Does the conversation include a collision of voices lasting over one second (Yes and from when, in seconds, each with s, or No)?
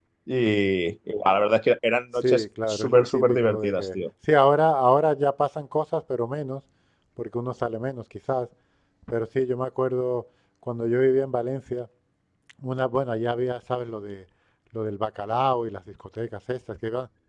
Yes, from 2.2 s